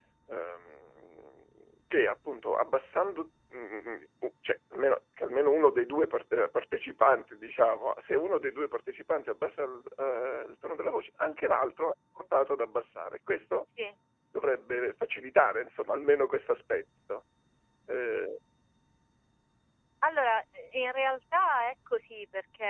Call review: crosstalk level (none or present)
none